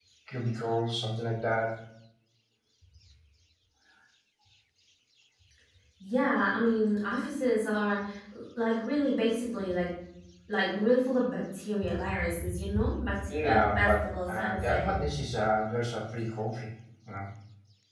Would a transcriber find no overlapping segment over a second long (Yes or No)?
No